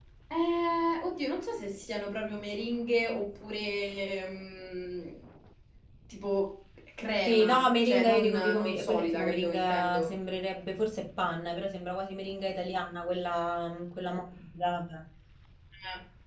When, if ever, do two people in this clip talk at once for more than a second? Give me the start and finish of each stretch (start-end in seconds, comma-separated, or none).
7.3-10.1